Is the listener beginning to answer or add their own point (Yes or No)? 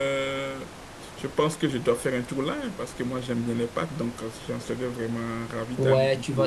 Yes